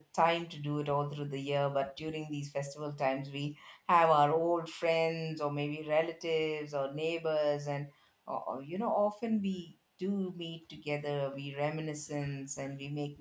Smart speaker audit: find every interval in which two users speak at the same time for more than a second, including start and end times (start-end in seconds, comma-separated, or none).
none